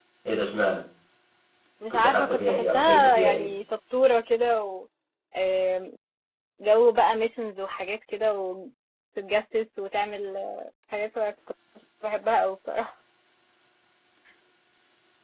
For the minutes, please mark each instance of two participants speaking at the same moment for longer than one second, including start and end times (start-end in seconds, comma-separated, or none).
1.9-3.5